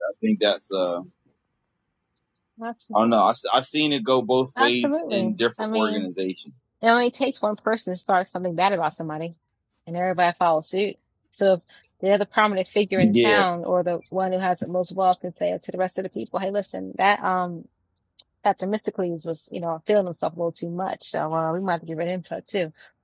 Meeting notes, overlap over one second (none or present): present